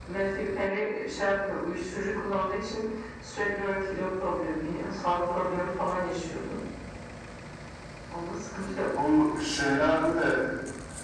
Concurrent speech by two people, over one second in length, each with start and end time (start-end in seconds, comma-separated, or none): none